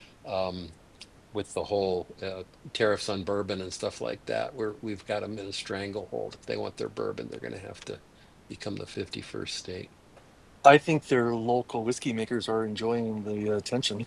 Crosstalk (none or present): none